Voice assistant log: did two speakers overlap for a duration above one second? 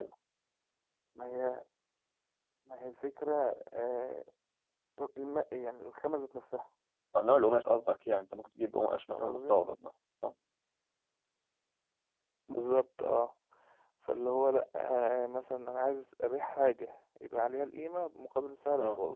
No

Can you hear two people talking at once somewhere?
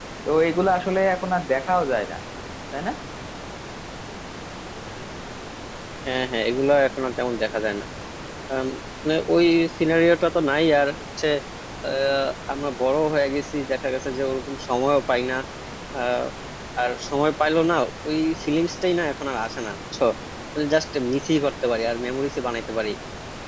No

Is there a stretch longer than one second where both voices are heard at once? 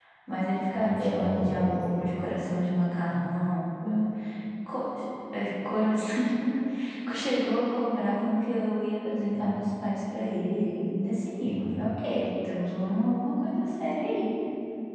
Yes, from 0.7 s

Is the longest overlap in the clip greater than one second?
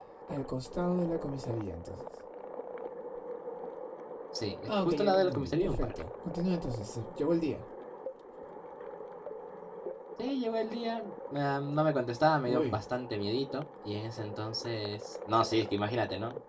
Yes, from 4.7 s

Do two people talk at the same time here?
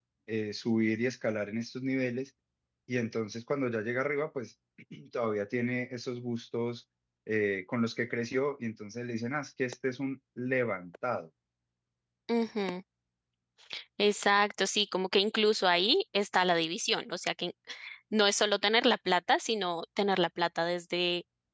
No

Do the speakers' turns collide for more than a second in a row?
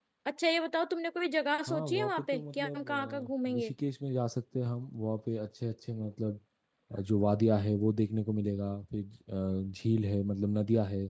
Yes, from 1.7 s

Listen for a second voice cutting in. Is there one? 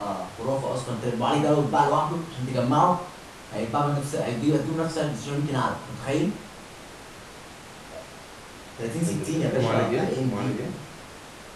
Yes, from 9.1 s

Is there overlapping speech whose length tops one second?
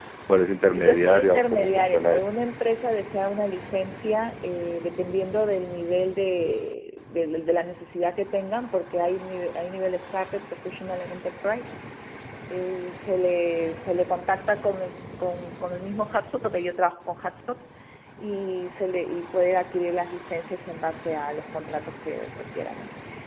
Yes, from 0.7 s

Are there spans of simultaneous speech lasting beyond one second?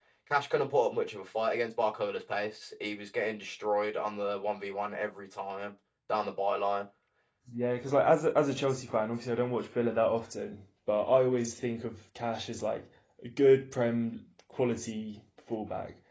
No

